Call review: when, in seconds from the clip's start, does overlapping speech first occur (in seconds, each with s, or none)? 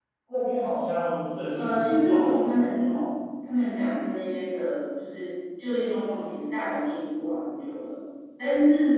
1.6 s